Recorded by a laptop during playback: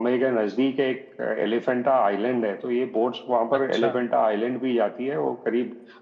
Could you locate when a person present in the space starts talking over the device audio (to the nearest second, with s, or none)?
4 s